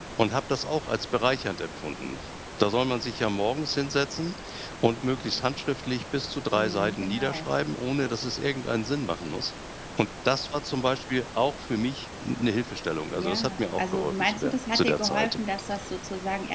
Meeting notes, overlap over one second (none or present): present